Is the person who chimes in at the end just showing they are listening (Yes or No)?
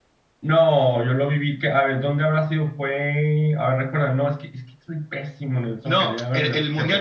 No